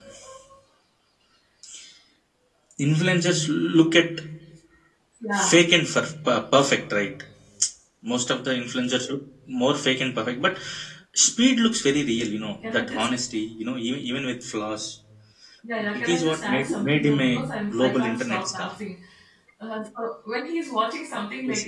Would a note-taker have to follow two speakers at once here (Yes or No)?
Yes